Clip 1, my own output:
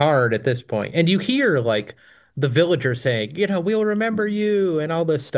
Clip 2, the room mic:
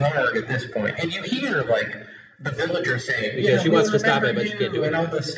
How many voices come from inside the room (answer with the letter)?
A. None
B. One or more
B